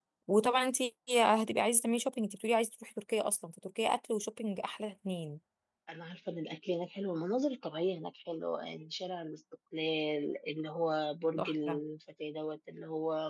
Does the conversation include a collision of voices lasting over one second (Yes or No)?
No